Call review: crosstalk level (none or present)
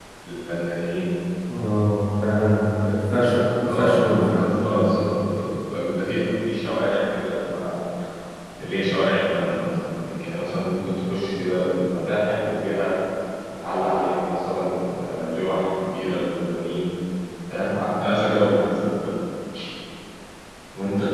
present